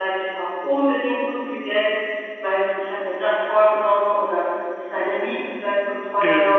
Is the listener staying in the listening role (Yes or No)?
No